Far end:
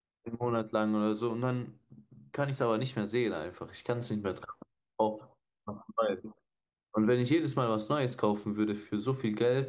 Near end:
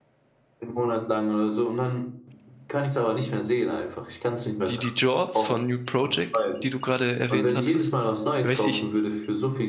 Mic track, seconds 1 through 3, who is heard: echo only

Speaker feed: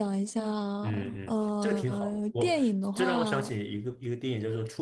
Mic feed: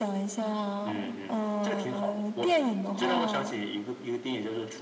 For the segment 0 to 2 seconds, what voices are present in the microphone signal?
echo only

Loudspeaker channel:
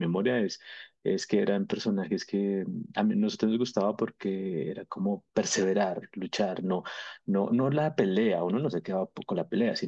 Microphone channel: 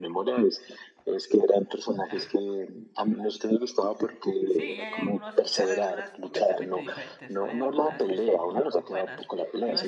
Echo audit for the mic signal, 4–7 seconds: both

